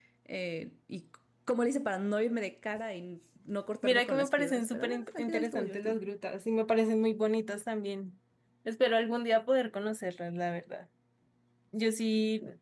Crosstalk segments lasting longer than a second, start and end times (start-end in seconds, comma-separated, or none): 3.8-6.0